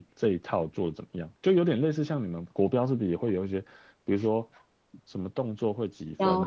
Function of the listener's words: listening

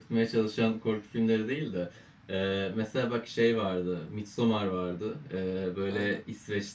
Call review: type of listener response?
listening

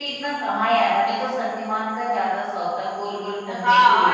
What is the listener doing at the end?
taking over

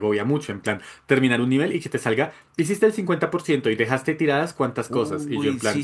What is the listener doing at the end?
taking over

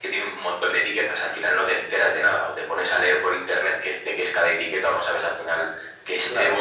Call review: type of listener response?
listening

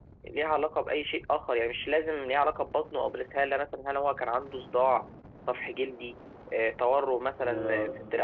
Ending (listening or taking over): taking over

